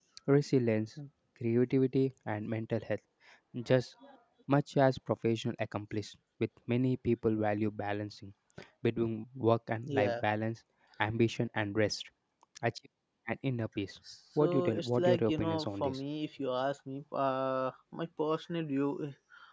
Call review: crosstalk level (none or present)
present